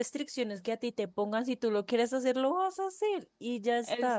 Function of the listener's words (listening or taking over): taking over